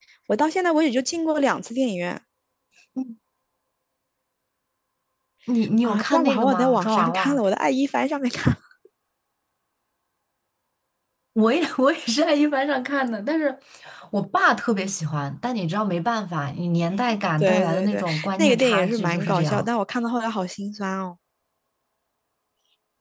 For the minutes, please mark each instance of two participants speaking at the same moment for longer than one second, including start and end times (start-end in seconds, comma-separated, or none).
5.8-7.4, 17.4-19.7